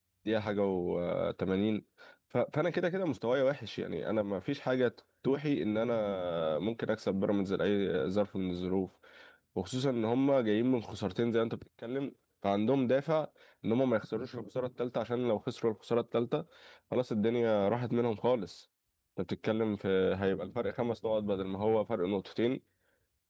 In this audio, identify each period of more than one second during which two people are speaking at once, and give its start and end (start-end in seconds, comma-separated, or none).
none